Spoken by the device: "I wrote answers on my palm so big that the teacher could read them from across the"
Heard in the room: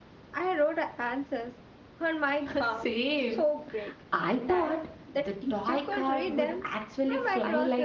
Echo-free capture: No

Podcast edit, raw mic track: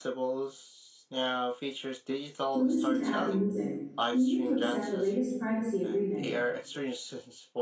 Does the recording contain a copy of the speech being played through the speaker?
Yes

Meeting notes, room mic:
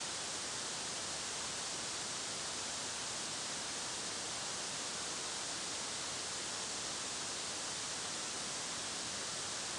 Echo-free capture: Yes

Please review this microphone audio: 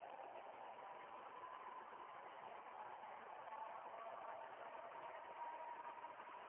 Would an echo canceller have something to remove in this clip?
No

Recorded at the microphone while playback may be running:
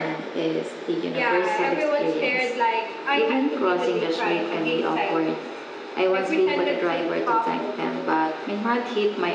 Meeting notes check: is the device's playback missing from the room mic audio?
No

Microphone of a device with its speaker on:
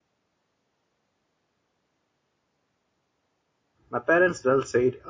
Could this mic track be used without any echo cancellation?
Yes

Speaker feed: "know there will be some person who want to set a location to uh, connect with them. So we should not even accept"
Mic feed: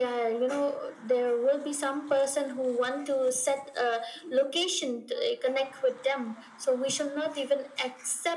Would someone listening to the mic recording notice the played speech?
Yes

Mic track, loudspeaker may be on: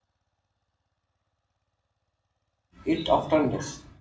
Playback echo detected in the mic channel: No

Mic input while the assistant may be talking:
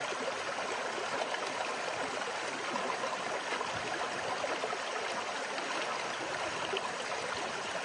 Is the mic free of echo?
Yes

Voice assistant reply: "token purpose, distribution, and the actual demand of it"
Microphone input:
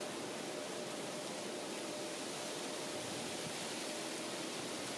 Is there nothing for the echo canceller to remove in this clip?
Yes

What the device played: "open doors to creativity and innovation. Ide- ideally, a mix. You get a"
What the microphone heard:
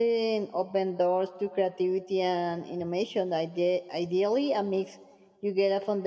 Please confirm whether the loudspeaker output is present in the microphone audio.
Yes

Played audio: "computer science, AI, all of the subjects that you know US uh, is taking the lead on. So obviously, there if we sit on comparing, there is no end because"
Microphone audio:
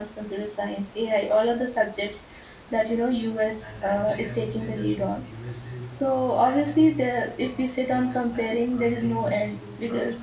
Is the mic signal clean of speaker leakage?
No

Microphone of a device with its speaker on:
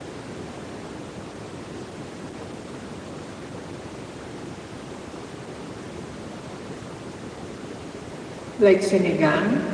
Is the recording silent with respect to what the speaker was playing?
Yes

